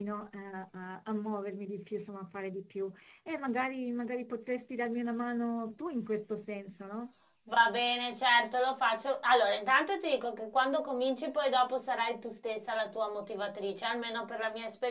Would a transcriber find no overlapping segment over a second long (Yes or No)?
Yes